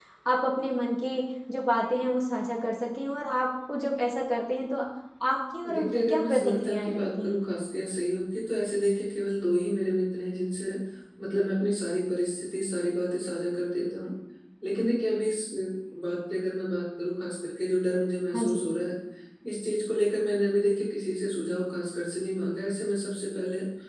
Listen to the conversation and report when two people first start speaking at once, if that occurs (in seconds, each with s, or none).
5.7 s